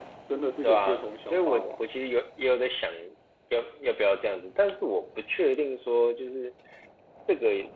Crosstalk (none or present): present